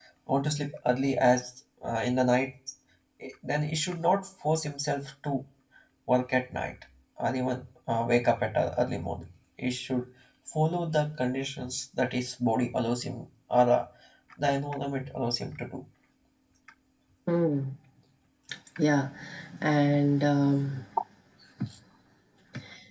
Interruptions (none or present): none